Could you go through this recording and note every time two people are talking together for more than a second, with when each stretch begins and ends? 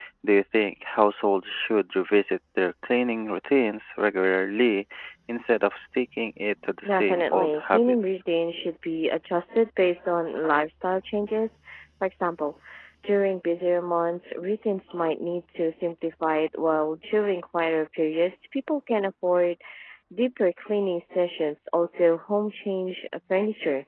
6.9-8.2

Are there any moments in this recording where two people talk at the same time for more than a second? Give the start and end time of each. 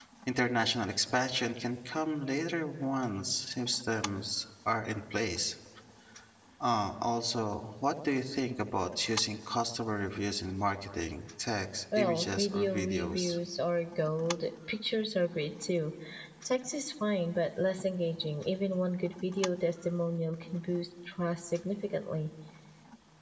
12.0-13.4

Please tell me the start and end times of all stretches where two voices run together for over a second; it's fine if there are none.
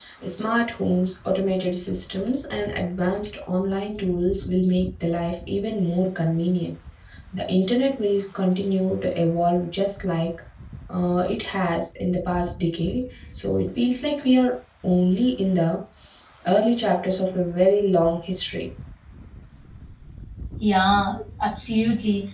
none

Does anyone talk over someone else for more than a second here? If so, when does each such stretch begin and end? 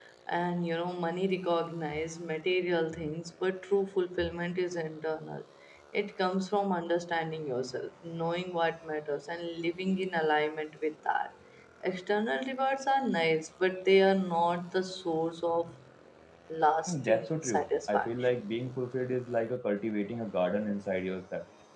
16.9-18.4

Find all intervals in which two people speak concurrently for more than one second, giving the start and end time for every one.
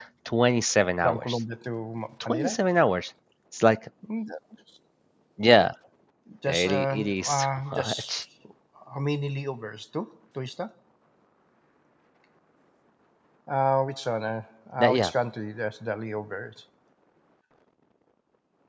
6.5-8.2

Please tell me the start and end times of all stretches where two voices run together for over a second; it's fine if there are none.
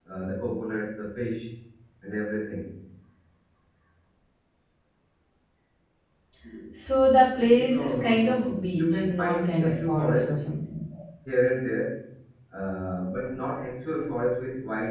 7.3-10.4

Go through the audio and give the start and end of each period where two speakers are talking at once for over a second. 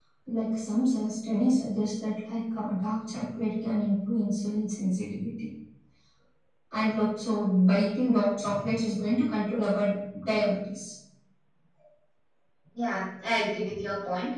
none

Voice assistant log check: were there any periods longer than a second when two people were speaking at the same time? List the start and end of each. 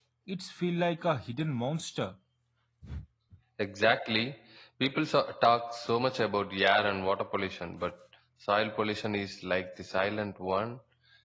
none

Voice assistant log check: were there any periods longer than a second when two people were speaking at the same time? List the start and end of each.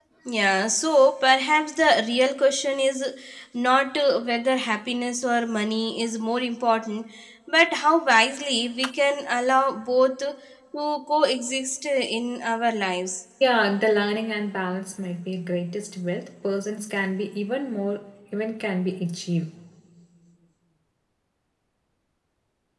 none

